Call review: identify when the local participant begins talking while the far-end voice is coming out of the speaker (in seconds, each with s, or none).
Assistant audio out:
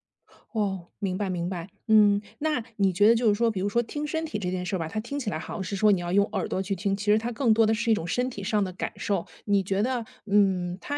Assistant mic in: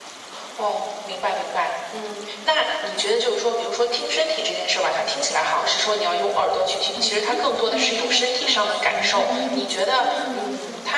6.9 s